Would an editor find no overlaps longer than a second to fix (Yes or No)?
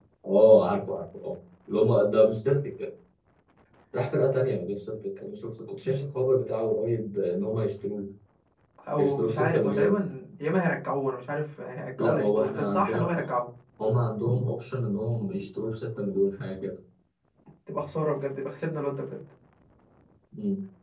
No